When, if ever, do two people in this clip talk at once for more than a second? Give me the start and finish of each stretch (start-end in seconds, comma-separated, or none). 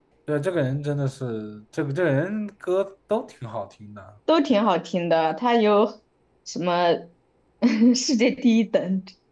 none